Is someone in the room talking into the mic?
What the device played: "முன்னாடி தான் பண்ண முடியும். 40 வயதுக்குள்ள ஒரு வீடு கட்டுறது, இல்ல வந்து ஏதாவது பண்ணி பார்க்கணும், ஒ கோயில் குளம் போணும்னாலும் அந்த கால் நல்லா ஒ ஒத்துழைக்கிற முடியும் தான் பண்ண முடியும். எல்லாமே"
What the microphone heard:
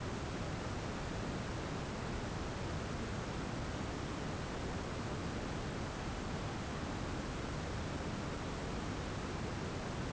No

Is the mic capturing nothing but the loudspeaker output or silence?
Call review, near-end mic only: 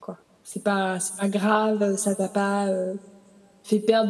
No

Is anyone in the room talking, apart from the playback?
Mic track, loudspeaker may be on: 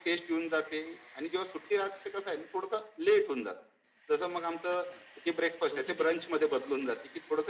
Yes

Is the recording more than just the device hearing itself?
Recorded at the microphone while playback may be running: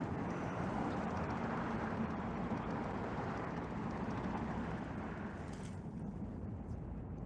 No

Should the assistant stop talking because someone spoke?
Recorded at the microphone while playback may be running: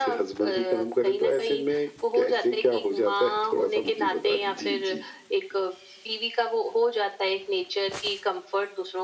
No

